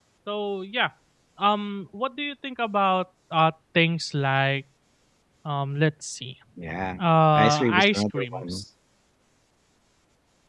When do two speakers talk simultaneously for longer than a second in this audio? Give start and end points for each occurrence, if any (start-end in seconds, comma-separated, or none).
7.4-8.6